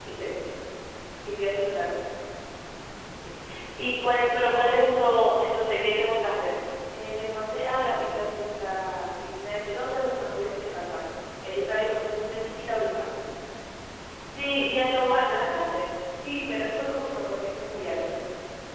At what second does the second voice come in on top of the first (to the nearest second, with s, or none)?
none